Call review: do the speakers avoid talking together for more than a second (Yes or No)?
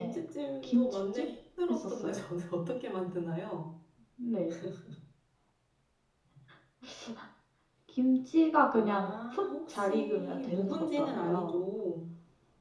No